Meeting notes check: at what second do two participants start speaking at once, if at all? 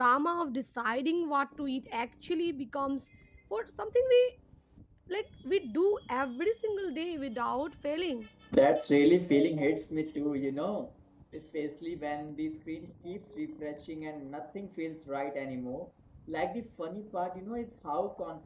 none

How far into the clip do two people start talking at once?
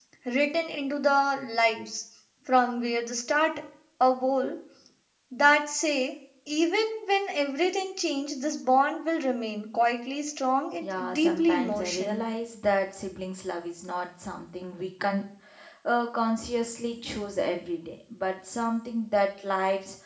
10.8 s

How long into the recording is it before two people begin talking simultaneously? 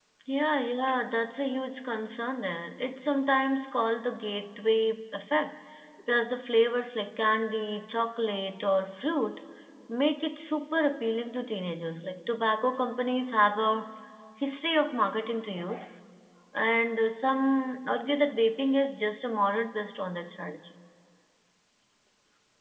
none

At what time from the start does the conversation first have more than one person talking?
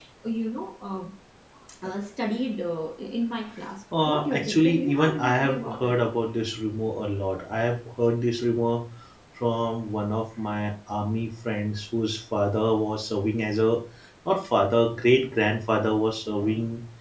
3.9 s

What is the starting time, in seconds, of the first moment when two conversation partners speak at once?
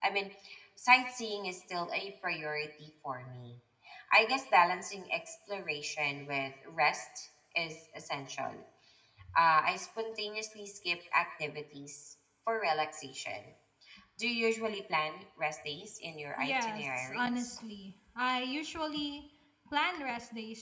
16.4 s

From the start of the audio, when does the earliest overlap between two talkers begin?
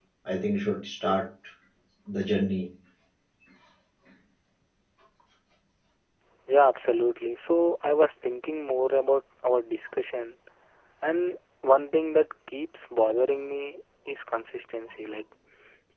none

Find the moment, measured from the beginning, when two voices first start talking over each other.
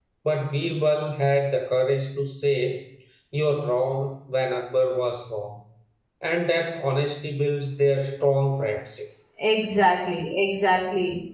none

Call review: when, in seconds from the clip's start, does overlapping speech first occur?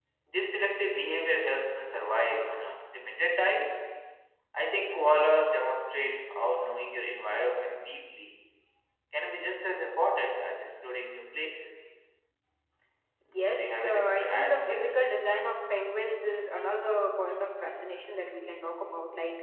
13.4 s

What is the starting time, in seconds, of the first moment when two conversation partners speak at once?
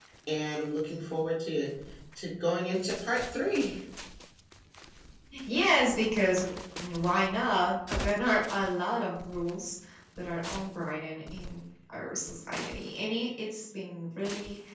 none

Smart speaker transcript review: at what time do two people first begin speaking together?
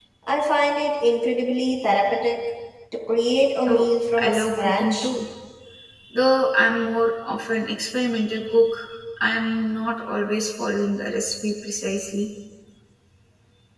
3.7 s

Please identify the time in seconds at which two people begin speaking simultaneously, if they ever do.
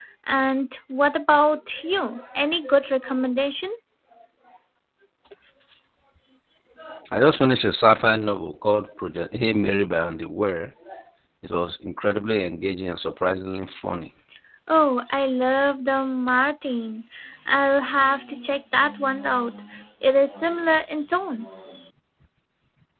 none

